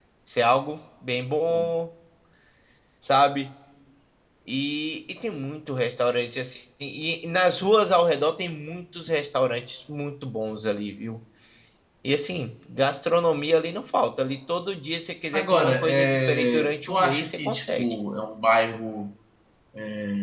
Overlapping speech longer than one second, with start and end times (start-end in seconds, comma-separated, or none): 15.3-18.0